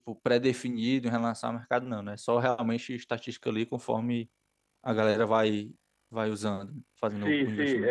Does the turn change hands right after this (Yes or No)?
Yes